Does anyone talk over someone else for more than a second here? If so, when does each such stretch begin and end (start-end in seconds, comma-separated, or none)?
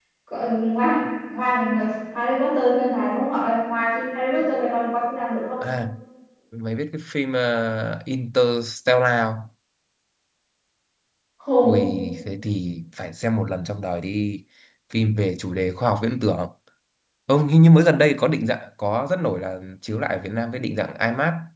none